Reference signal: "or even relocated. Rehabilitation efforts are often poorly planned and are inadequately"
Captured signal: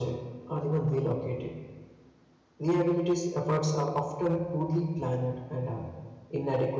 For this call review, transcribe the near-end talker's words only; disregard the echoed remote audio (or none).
none